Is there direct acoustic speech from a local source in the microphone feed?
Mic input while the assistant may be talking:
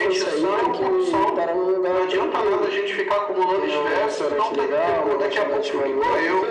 No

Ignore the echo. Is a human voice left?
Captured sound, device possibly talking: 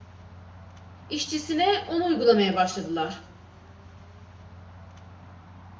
Yes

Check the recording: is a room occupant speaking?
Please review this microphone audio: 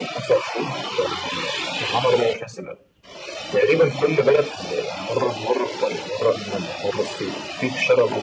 No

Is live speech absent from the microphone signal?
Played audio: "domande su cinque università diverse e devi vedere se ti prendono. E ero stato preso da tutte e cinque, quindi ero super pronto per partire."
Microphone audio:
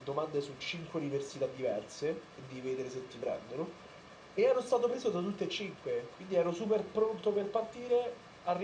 Yes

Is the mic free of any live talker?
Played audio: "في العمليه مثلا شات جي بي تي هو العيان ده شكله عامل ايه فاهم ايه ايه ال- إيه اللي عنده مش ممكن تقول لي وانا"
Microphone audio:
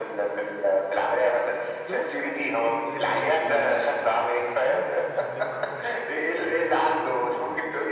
No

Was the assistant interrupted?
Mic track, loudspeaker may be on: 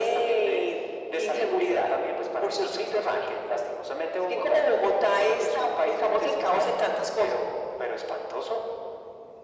No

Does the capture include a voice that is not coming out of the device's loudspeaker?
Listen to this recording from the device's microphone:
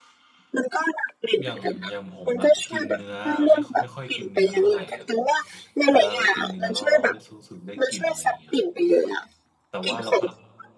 Yes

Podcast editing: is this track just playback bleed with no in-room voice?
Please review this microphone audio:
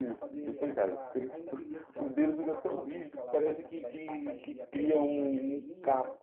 No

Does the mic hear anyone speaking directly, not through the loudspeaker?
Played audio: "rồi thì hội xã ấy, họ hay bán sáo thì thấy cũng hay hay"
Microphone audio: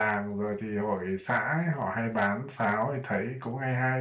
No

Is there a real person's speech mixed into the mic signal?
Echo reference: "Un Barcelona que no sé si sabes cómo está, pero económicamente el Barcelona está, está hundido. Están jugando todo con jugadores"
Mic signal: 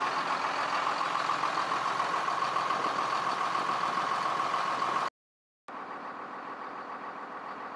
No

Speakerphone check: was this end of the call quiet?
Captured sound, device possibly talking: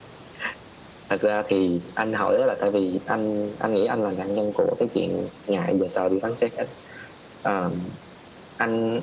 Yes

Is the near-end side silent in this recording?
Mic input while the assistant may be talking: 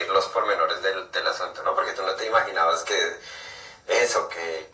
Yes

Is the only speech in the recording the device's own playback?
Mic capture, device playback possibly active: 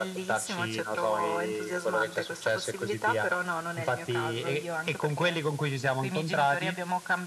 Yes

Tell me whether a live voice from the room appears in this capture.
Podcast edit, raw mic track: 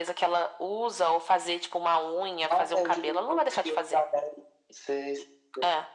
No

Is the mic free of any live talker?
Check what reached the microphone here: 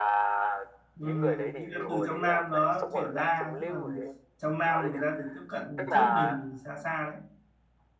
No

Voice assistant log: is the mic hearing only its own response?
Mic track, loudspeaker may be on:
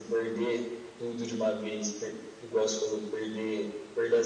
Yes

